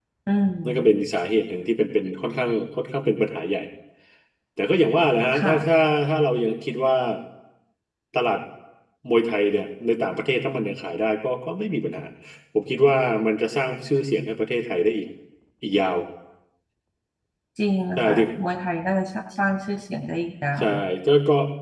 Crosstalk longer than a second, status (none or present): none